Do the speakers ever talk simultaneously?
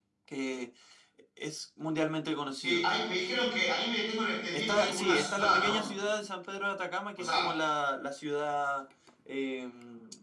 Yes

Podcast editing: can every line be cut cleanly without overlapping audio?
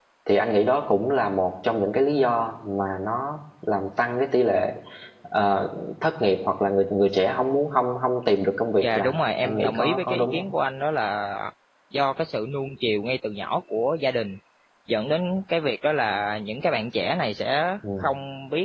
No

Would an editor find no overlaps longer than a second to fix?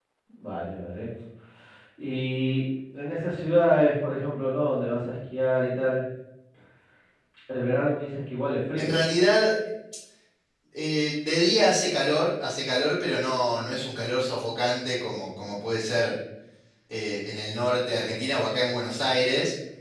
Yes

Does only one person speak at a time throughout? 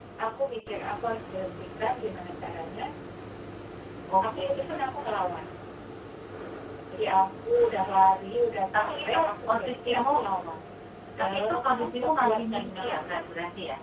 No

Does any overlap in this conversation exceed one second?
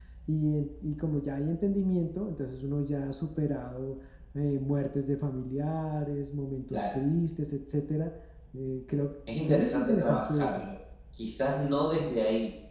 Yes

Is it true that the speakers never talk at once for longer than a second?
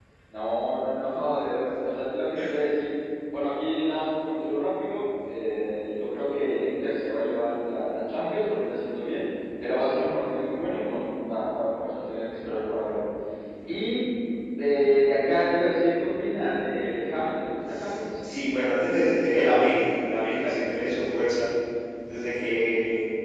Yes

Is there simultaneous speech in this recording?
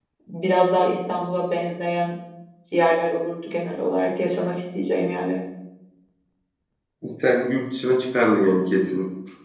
No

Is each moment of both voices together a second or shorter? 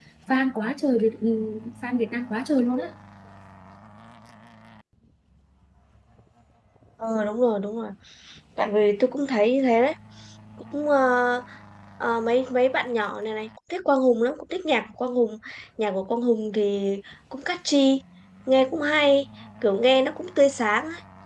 Yes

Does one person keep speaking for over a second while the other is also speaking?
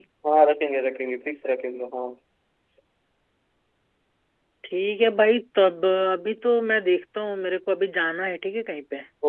No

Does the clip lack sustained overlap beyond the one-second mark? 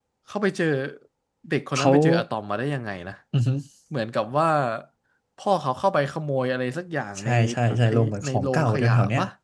No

